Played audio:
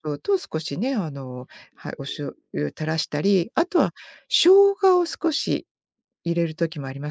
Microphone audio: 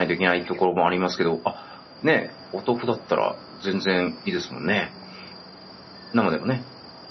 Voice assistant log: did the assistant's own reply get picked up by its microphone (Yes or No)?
No